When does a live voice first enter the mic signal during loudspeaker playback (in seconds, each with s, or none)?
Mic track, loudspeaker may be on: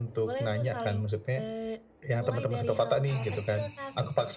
none